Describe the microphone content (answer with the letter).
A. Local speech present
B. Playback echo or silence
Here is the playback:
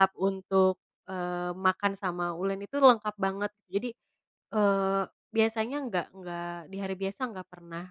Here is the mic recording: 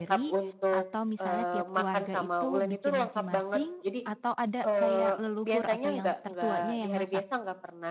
A